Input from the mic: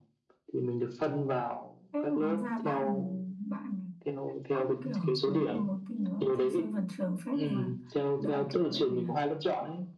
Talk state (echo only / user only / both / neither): both